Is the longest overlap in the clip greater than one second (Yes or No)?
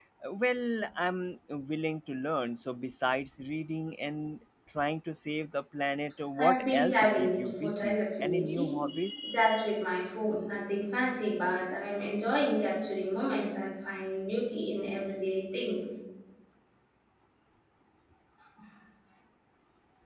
Yes